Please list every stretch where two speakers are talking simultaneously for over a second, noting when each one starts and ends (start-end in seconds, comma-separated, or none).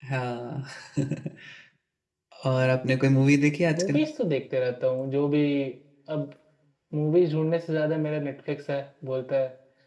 none